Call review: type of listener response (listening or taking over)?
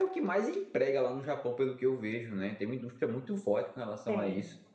taking over